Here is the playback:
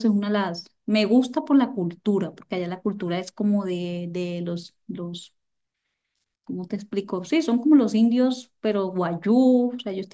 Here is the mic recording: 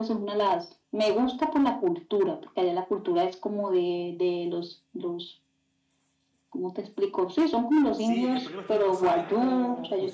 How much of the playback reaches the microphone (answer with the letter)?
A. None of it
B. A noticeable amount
B